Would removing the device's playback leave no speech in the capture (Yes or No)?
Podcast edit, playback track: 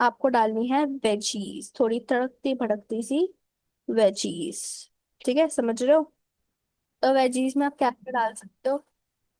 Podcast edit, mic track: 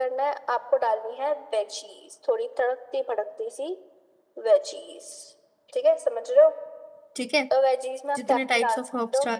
No